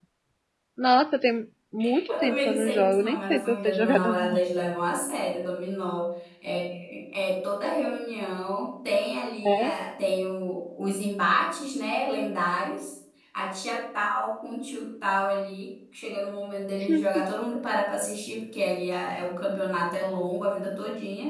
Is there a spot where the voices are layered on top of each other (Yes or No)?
Yes